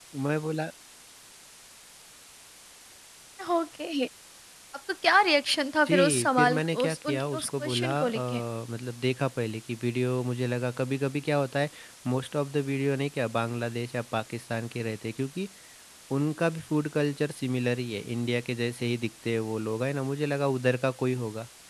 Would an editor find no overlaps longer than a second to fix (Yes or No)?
No